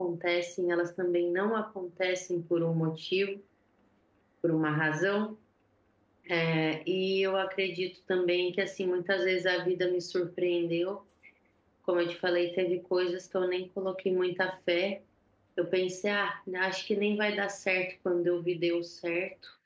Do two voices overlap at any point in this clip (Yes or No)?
No